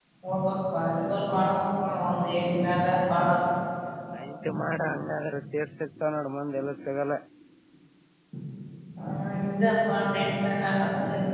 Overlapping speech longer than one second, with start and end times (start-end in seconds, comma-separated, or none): none